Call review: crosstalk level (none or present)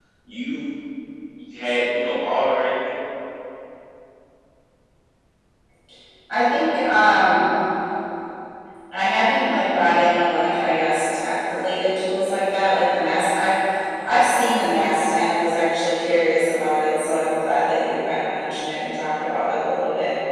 none